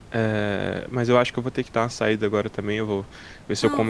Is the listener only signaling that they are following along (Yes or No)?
Yes